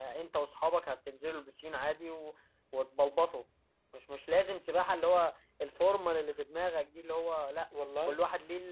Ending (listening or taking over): listening